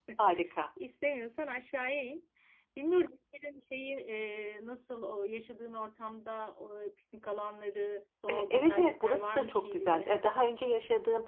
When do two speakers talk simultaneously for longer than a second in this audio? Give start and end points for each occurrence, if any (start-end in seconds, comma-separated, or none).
8.3-10.1